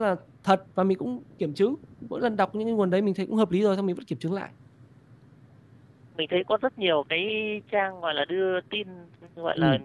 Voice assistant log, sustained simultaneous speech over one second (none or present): none